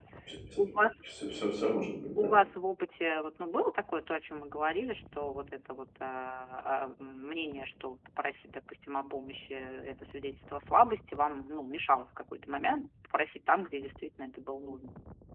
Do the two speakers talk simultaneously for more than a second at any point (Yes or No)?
No